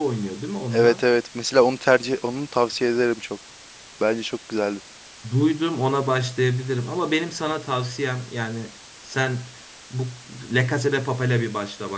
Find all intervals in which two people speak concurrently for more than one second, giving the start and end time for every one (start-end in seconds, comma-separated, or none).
none